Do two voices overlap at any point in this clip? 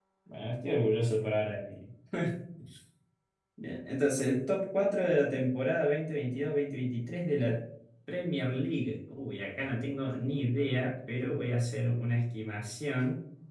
No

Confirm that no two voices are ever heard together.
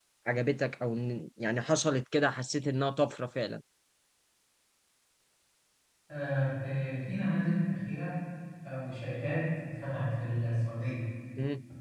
Yes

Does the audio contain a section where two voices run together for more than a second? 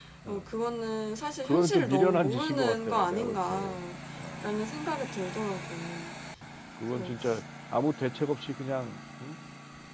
Yes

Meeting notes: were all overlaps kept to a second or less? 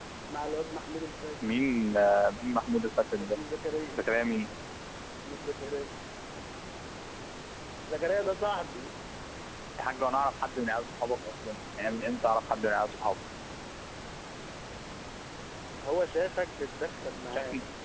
Yes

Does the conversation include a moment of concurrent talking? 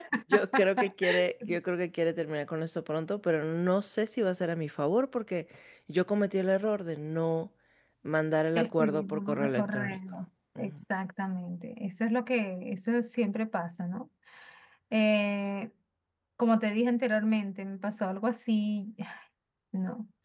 Yes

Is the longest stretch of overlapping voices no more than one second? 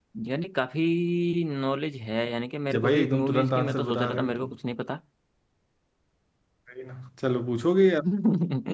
No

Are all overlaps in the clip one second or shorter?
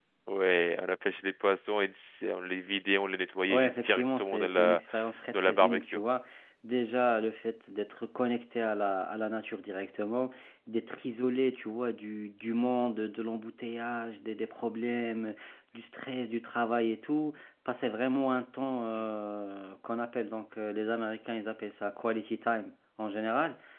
No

